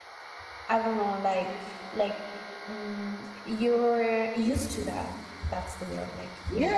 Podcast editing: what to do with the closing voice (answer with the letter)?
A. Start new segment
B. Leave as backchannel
A